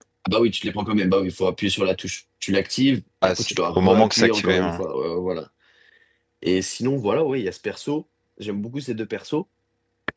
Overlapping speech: Yes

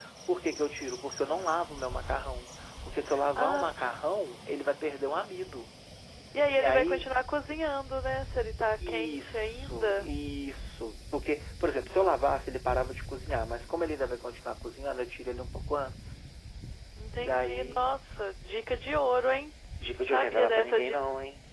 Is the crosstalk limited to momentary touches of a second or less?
No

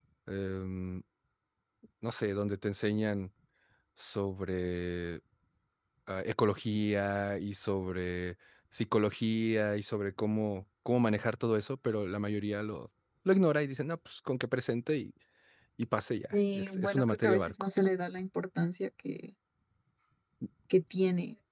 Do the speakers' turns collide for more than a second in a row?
Yes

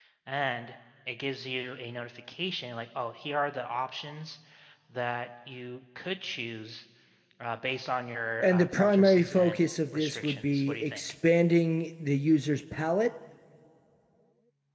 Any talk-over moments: Yes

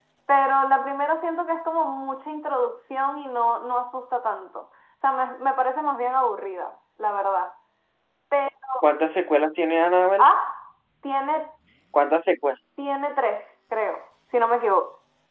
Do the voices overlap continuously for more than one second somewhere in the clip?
No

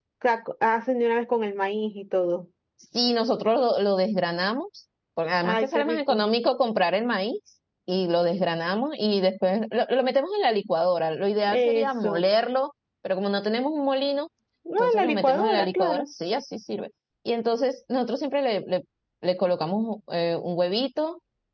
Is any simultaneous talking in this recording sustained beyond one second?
Yes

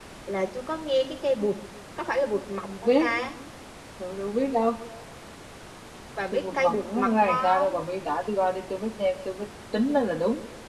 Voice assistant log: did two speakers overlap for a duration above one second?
Yes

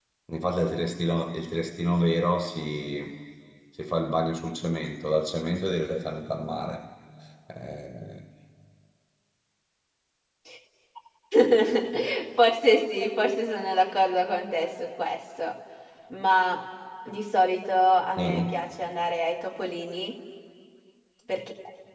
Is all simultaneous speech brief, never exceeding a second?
Yes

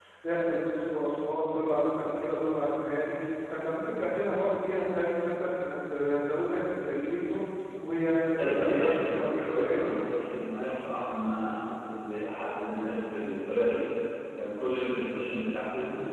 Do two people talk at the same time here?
Yes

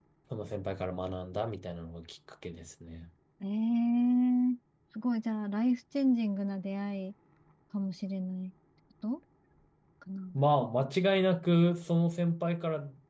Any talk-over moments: No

